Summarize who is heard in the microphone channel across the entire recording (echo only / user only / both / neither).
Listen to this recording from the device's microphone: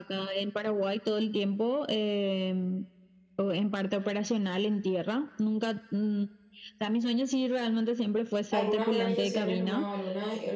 both